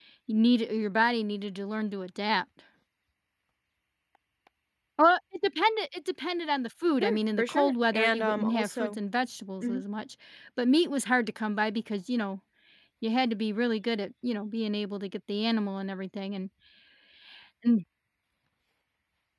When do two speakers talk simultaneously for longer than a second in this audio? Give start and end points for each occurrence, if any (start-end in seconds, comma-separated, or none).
7.0-9.0